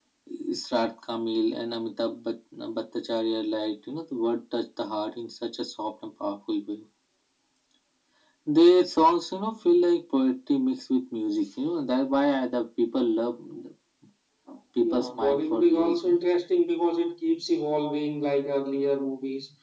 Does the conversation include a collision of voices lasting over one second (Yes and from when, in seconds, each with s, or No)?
Yes, from 14.8 s